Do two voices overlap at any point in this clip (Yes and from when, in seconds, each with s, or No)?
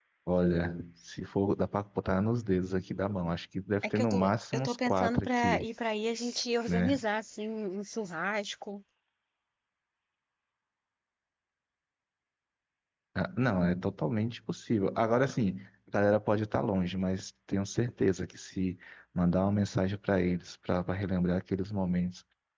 Yes, from 3.8 s